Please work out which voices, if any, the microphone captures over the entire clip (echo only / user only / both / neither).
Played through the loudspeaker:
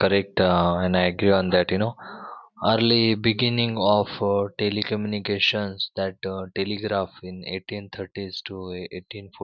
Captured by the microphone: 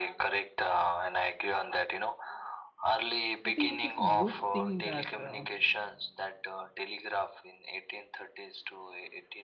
both